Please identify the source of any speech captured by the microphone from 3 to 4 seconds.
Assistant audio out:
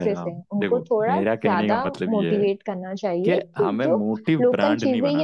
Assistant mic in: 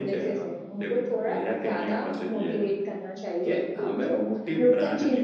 echo only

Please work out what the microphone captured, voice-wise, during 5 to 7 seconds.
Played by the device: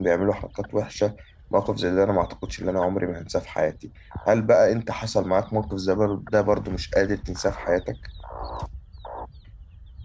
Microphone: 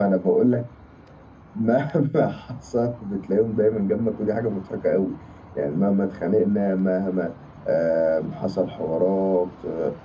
user only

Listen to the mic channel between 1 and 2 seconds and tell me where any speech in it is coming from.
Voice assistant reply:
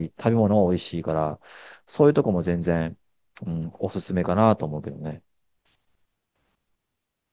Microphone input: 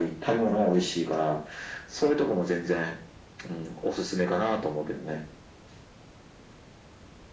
echo only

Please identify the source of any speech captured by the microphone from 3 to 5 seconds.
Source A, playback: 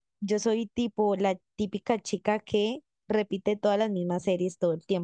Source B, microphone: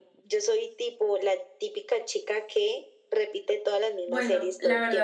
both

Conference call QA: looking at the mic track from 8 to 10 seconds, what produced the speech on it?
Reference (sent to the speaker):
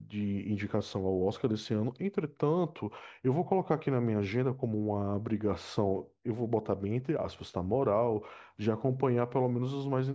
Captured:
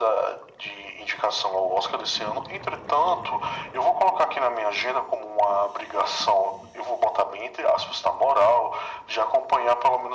echo only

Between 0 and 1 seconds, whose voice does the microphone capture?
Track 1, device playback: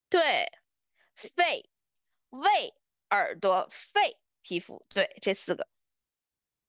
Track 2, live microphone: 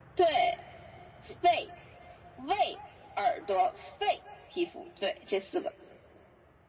echo only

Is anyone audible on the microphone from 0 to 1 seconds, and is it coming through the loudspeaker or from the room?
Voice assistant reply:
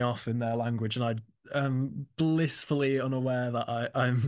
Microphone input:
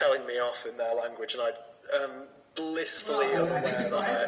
echo only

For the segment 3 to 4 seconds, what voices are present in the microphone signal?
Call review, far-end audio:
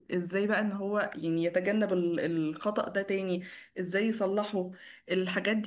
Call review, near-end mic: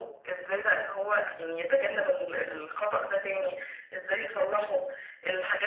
echo only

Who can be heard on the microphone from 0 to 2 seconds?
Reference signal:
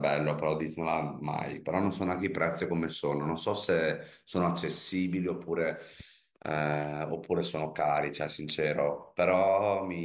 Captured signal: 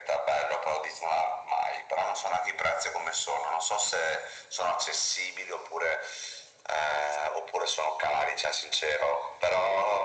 echo only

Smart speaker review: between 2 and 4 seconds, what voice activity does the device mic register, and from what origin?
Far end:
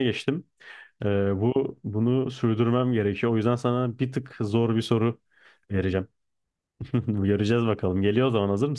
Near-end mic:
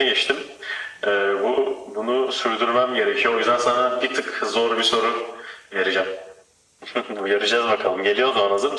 echo only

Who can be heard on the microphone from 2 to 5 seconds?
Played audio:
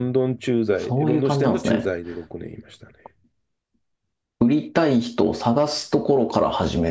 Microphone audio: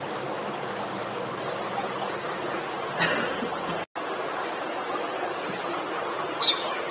neither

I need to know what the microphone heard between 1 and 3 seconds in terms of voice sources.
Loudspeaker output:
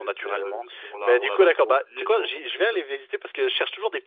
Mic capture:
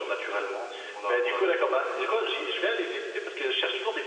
echo only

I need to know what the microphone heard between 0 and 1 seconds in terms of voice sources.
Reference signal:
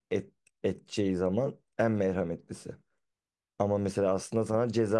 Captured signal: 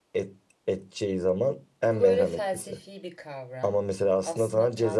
echo only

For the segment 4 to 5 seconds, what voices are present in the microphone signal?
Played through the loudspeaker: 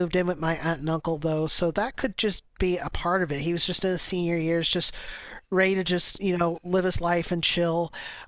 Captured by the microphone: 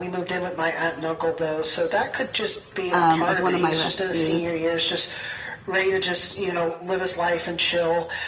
both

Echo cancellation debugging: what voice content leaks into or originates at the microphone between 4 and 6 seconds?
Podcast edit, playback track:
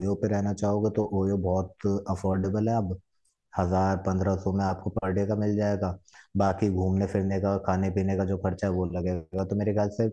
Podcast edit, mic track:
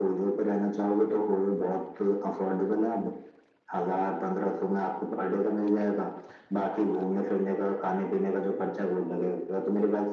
echo only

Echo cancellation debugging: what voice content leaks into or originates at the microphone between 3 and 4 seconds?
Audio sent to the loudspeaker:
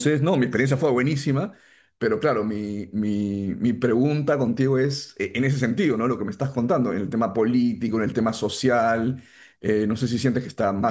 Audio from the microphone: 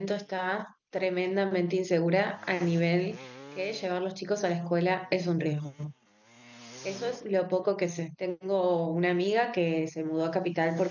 user only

